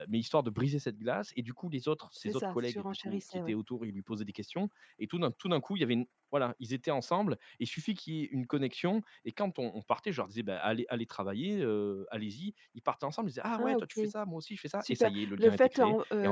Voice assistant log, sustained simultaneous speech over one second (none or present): present